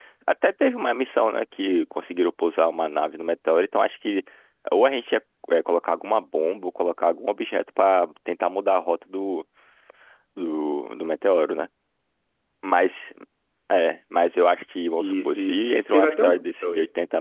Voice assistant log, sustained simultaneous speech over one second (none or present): present